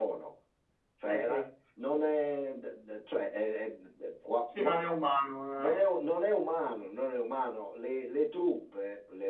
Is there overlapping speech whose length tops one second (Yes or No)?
No